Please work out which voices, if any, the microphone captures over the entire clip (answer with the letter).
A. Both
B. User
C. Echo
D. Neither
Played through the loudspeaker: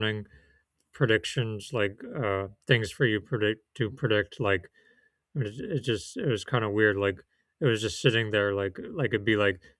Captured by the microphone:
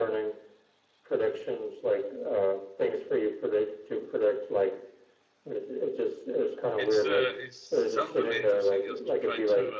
A